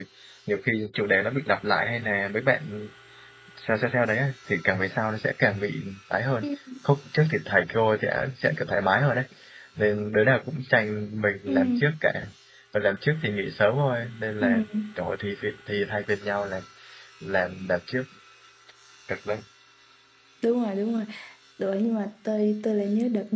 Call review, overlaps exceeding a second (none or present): none